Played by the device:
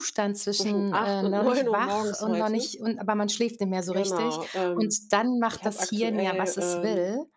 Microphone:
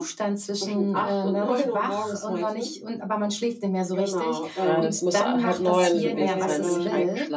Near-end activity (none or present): present